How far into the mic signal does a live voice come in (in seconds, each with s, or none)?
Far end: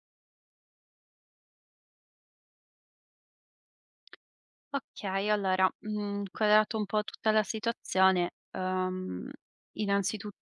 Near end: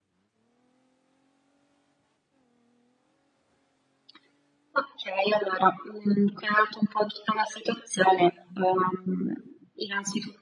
none